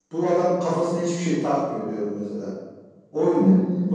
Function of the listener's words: taking over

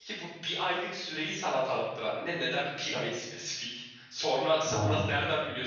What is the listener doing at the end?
listening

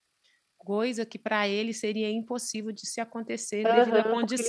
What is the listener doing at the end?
taking over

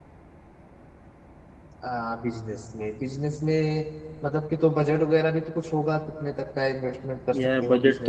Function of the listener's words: taking over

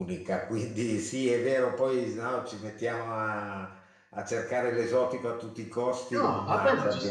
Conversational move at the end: taking over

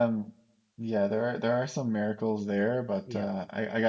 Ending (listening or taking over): listening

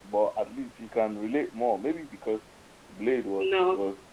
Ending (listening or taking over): listening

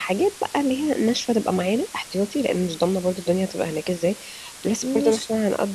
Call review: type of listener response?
listening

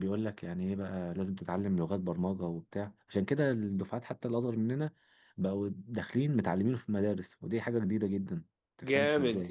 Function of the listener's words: taking over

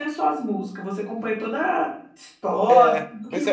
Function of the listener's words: taking over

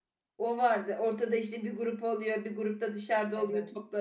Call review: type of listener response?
listening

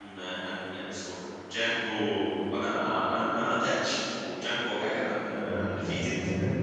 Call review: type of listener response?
taking over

